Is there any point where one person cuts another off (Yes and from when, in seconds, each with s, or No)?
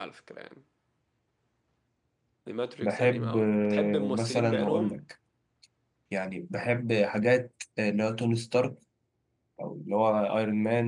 Yes, from 2.8 s